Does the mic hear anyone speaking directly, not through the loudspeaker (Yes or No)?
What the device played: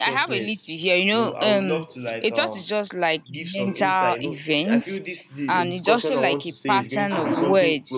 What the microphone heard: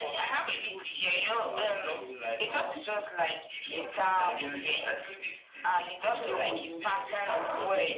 Yes